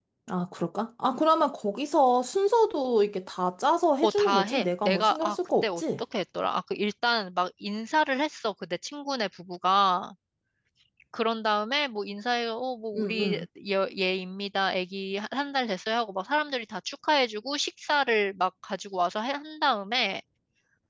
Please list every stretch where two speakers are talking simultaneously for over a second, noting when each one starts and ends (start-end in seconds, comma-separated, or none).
4.0-5.8